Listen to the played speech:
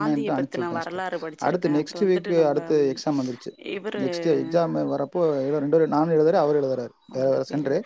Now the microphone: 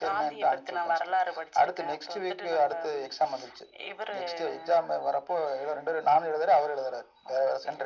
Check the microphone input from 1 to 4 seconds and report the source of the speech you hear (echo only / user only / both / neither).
echo only